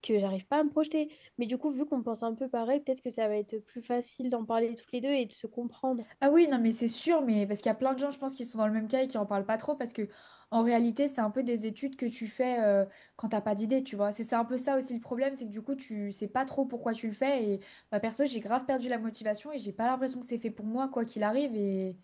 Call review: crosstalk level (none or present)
none